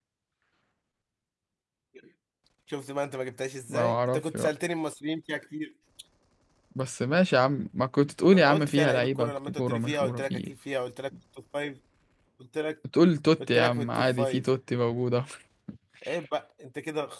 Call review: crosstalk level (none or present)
present